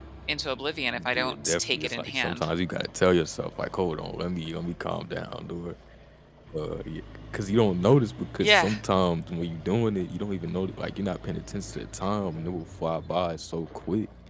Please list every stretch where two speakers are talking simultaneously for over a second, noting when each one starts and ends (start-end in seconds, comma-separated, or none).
1.1-2.5